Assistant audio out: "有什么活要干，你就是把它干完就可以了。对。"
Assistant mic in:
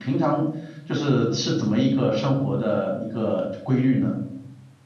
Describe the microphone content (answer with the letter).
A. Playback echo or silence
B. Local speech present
B